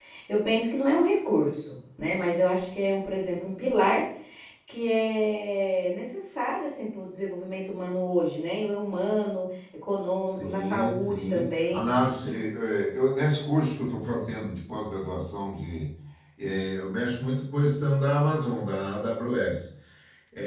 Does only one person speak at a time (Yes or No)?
No